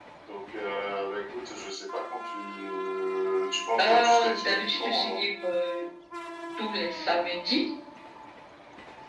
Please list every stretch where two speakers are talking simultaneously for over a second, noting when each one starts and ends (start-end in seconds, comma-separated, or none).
3.8-5.2